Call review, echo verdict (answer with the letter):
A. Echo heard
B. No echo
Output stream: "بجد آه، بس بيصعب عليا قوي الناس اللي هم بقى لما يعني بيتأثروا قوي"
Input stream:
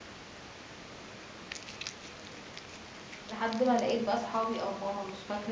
B